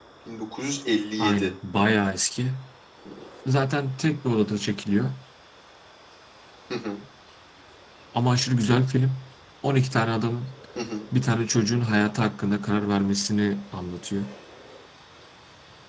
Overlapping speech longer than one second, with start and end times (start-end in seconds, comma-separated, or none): none